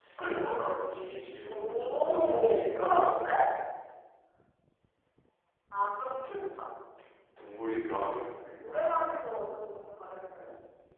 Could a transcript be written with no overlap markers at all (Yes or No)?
No